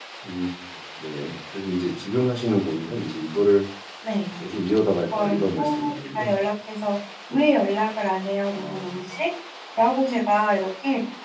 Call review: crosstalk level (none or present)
present